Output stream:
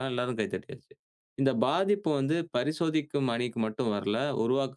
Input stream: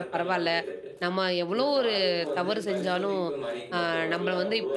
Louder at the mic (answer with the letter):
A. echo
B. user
B